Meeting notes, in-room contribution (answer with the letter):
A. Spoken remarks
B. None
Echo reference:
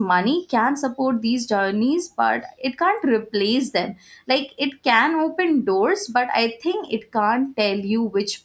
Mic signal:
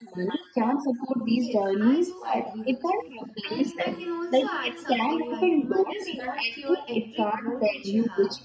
A